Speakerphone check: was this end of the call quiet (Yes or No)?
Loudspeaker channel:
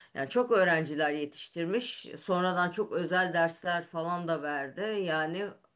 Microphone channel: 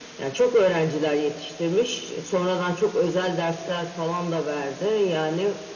Yes